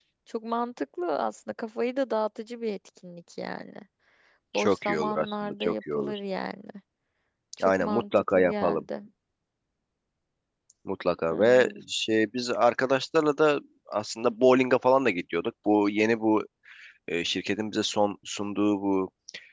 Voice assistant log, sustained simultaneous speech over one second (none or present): present